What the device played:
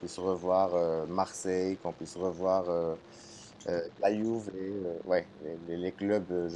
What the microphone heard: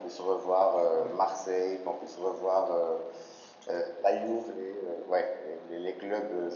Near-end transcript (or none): Ouais,